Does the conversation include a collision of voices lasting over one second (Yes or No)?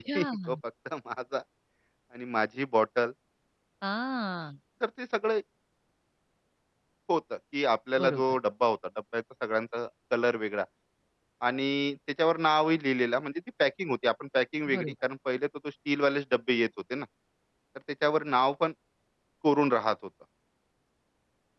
No